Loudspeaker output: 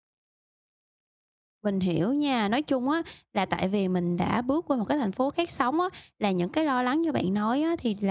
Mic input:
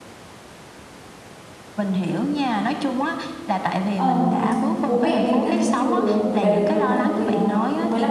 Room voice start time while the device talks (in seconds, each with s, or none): 3.9 s